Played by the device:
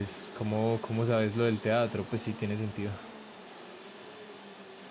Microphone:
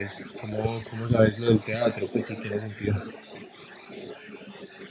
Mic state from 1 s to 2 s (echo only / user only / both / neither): echo only